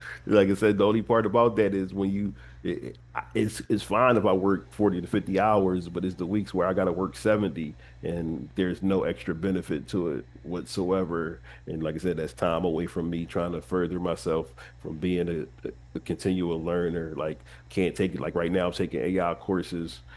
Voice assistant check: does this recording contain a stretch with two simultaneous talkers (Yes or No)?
No